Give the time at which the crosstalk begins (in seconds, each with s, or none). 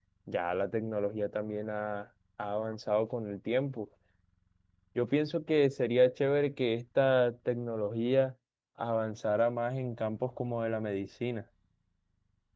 none